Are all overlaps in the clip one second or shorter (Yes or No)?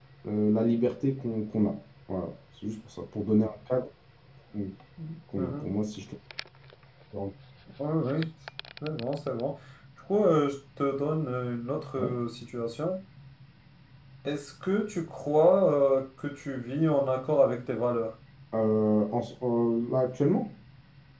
Yes